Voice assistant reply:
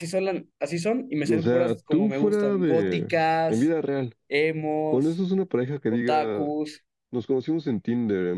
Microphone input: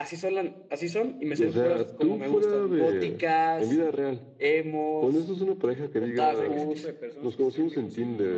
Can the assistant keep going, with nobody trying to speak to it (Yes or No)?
No